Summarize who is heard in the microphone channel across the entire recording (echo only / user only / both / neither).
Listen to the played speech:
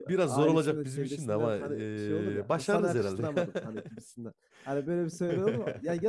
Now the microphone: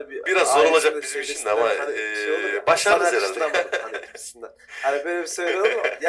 echo only